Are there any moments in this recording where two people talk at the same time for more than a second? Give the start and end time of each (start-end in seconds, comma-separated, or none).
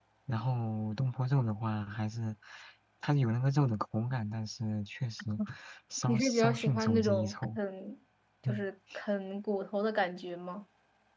6.1-7.6